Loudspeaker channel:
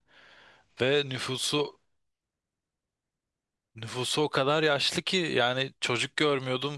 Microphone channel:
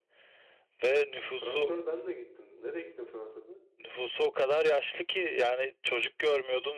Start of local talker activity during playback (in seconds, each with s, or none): 1.3 s